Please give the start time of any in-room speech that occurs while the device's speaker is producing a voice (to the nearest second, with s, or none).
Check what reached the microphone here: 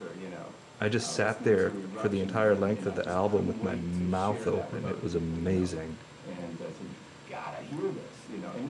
1 s